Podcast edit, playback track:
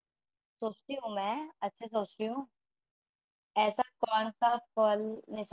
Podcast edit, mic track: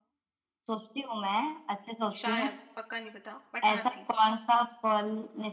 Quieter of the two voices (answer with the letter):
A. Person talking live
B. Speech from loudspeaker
A